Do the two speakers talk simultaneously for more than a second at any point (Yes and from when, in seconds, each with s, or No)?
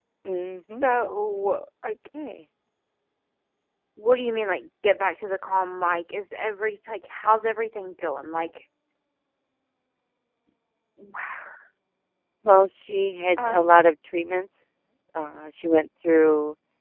No